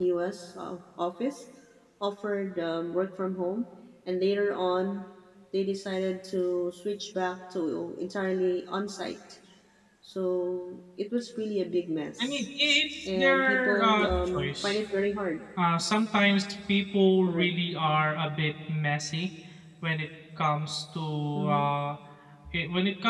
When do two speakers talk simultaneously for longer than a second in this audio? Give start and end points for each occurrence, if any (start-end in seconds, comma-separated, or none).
13.1-14.8